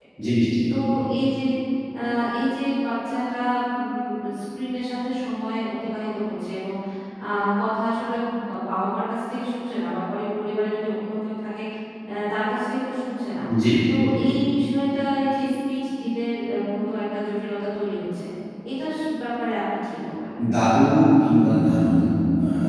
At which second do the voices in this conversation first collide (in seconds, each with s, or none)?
none